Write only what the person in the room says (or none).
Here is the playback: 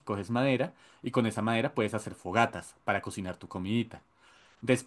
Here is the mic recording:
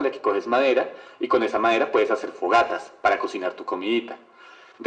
none